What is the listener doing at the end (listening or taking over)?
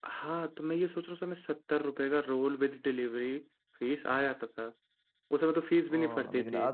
taking over